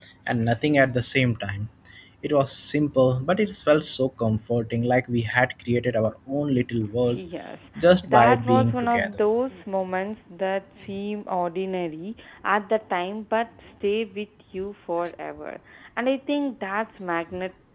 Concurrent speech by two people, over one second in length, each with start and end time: 7.8-9.2

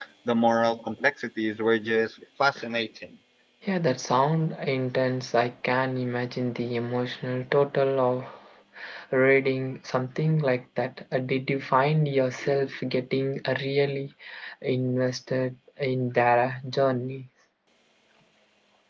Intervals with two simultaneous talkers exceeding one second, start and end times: none

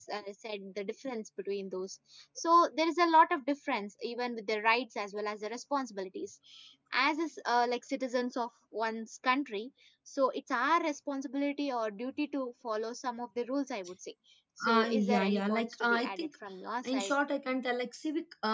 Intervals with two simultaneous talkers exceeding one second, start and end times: 14.7-16.3

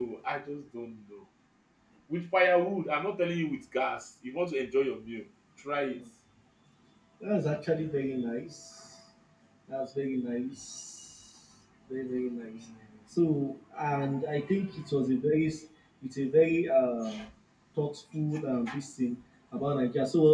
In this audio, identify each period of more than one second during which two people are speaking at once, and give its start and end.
none

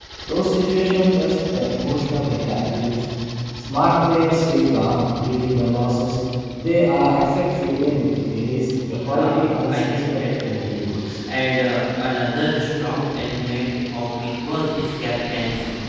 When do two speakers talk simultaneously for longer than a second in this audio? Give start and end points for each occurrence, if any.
8.9-10.6

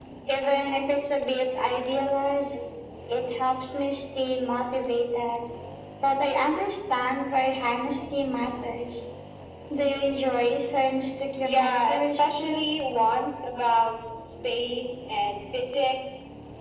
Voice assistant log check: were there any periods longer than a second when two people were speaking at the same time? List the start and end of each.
11.4-12.7

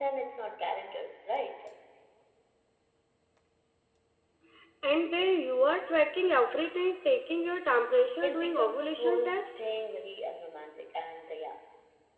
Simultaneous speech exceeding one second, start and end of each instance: 8.2-9.6

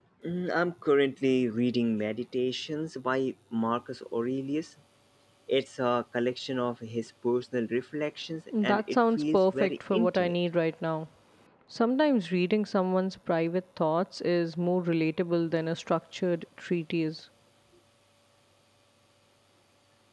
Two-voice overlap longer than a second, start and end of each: 8.6-10.3

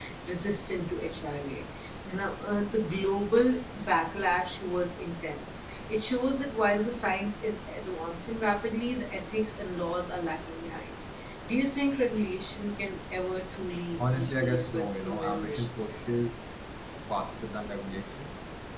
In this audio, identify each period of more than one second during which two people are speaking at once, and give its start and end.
14.1-15.6

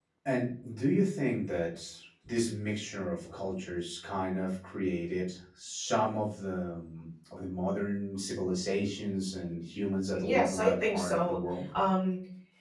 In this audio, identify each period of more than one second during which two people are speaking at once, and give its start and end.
10.1-11.4

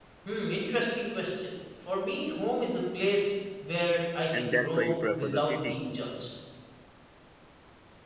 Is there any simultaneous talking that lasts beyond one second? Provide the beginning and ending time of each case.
4.3-5.8

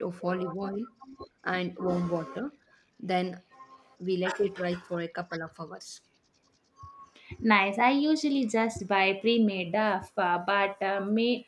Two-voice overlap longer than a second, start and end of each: none

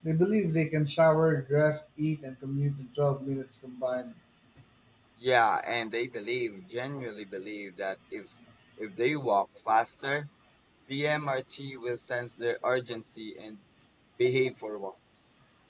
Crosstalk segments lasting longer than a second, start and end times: none

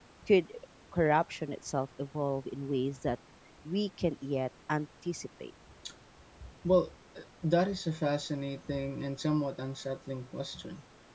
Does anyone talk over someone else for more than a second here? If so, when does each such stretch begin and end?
none

